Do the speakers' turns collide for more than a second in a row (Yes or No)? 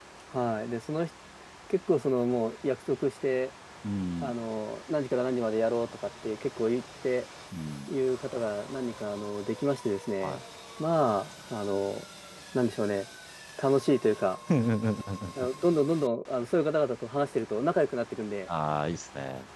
No